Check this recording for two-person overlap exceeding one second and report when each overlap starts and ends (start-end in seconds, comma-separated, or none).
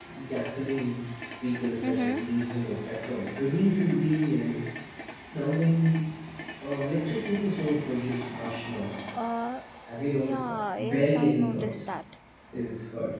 10.2-11.9